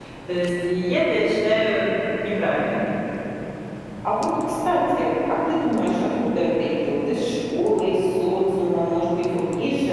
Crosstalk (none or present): none